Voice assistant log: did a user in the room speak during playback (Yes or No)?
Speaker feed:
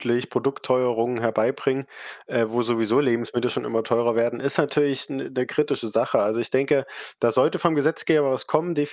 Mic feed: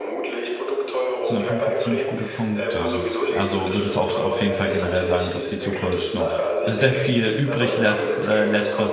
Yes